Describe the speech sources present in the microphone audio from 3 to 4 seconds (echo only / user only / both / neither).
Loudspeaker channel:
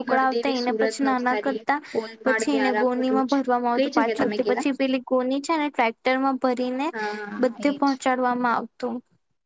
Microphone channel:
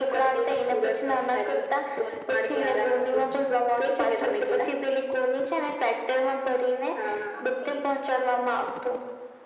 echo only